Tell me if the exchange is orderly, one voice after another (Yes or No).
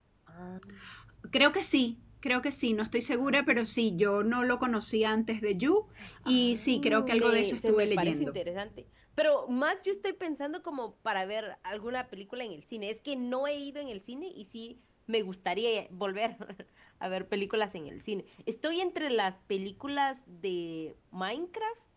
No